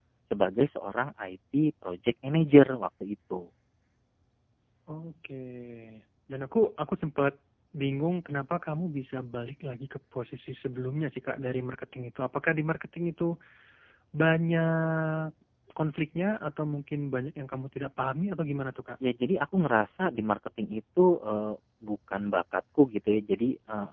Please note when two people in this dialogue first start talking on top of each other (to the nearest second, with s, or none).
none